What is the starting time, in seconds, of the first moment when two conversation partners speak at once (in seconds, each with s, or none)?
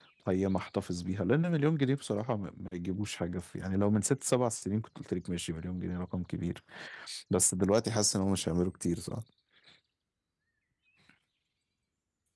none